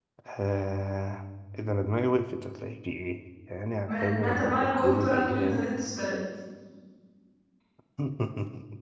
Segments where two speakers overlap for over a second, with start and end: 3.9-5.6

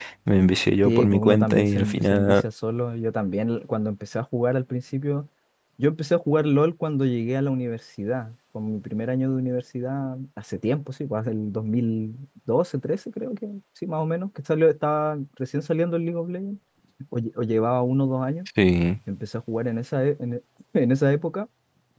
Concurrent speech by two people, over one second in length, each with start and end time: 0.8-2.4

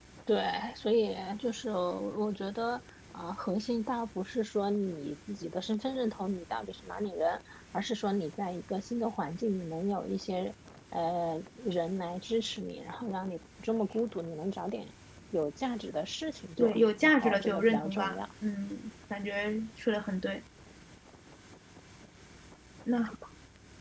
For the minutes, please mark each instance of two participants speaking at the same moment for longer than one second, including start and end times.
16.6-18.2

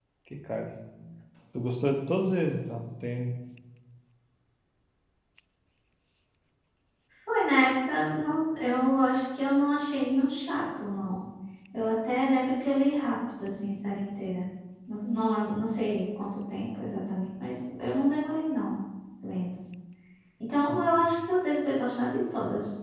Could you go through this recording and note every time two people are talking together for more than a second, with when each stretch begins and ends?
none

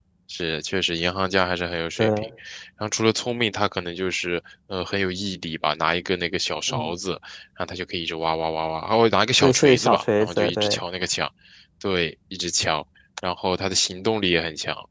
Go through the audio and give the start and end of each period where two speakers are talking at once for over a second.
9.4-10.8

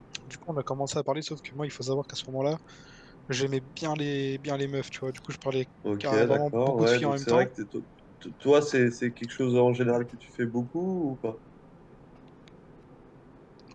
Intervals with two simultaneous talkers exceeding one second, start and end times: 6.0-7.5

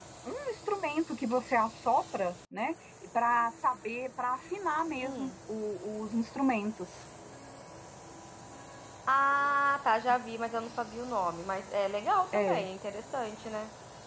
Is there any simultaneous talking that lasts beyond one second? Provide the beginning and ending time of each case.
none

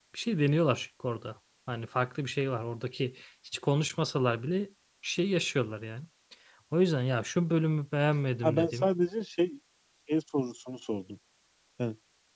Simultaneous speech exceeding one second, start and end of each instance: none

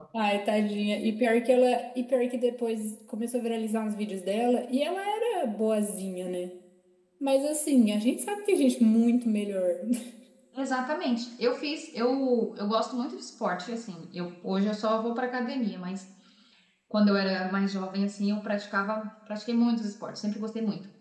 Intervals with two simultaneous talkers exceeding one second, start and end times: none

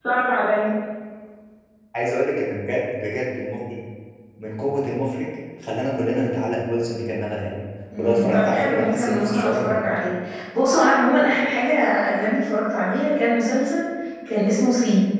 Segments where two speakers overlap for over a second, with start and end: 8.0-9.9

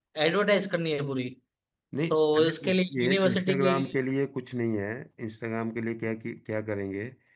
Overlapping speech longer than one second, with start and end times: 2.1-3.7

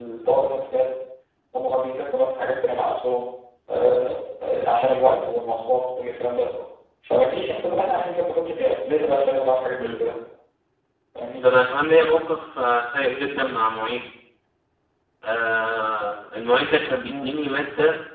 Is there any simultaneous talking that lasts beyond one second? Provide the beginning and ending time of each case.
none

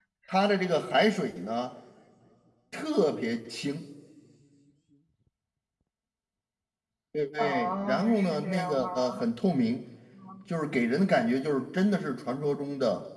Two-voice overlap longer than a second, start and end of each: 7.4-9.2

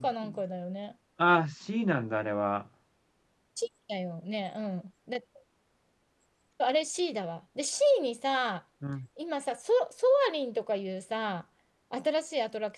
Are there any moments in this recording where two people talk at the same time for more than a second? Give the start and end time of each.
none

